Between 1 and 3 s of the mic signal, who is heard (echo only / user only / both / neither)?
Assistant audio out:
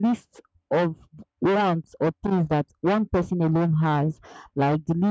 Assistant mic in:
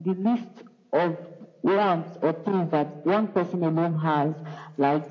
echo only